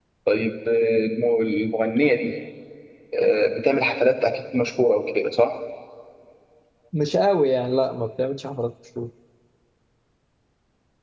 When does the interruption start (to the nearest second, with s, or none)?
none